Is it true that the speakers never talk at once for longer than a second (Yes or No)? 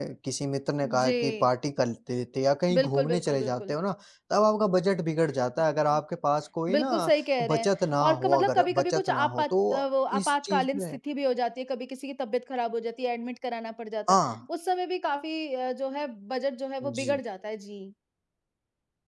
No